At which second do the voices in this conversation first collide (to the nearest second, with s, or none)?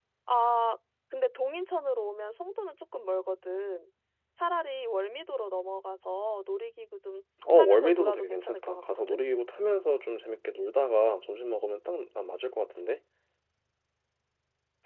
7 s